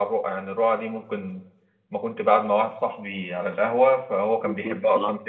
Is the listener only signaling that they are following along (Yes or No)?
Yes